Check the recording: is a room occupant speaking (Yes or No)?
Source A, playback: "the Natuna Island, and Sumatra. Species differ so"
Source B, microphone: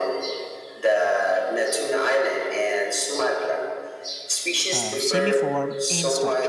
Yes